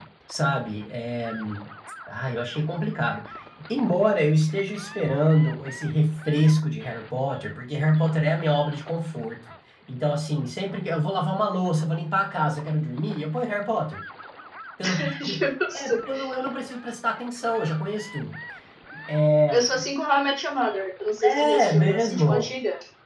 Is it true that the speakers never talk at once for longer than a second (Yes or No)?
No